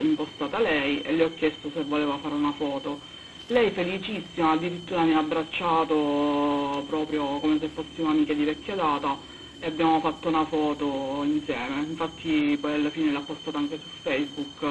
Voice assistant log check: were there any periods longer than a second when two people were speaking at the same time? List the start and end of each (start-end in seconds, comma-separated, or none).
none